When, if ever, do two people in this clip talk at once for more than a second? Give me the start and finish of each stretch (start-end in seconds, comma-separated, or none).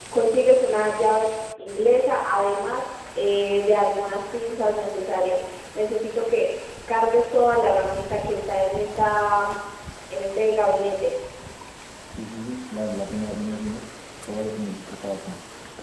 none